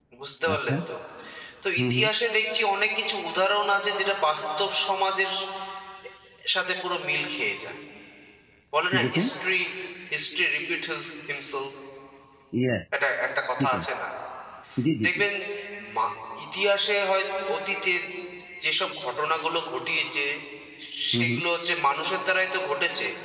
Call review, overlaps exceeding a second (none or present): none